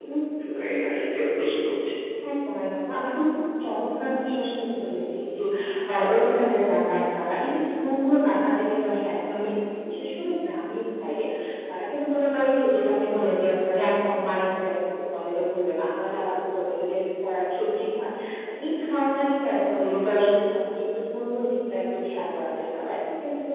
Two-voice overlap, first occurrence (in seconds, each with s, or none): none